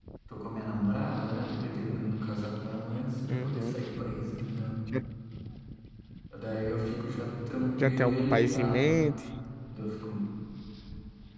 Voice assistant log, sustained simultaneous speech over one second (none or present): present